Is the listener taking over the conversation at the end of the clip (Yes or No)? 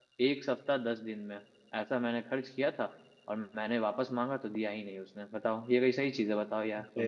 Yes